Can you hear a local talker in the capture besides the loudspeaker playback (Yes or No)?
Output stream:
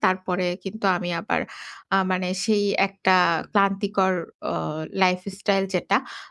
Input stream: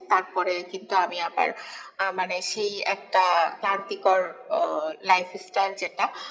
No